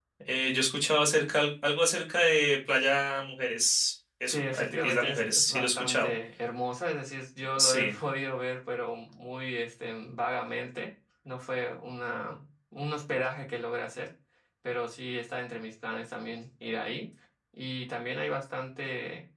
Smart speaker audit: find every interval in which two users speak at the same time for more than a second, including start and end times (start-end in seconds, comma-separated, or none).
4.3-6.1